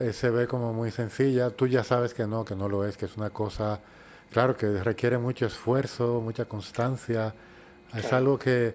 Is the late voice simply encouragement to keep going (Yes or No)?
Yes